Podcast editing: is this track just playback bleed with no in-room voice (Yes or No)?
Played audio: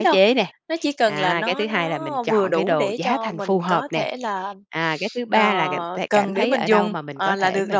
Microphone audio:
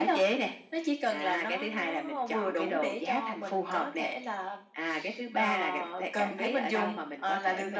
Yes